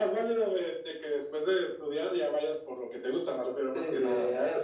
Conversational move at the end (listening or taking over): taking over